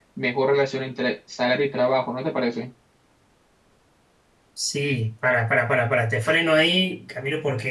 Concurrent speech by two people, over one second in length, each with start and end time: none

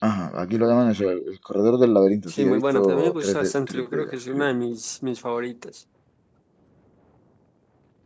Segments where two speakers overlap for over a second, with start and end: 2.3-4.5

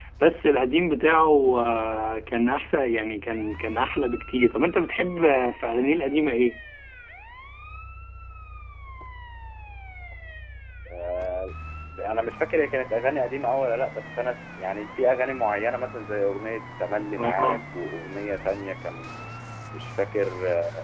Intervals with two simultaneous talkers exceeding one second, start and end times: none

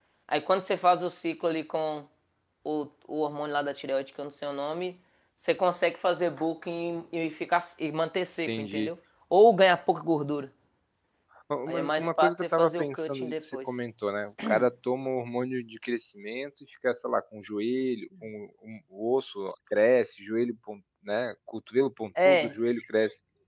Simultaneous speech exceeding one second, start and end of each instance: 11.7-13.6

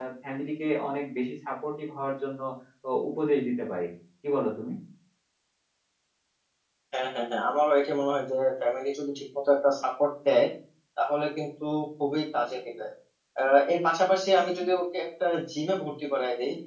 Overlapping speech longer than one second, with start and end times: none

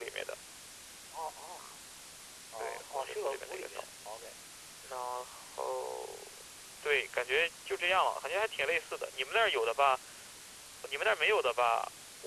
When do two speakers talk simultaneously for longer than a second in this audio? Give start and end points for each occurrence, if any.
2.6-3.8

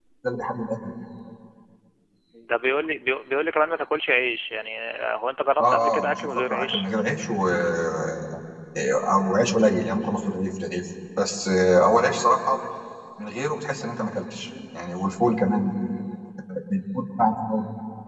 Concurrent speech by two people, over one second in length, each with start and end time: 5.6-6.9

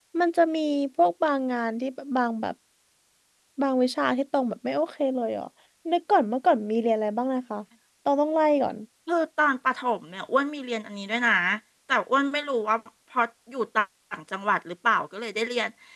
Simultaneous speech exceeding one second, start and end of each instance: none

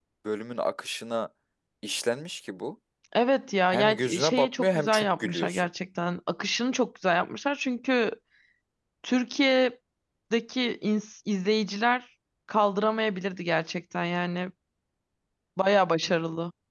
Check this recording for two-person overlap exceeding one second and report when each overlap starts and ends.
3.7-5.7

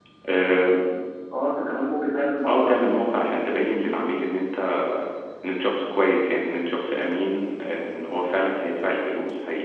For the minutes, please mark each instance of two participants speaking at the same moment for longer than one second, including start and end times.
none

